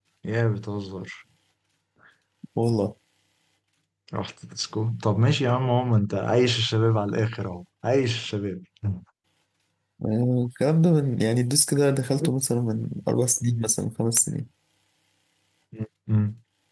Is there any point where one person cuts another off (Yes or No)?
No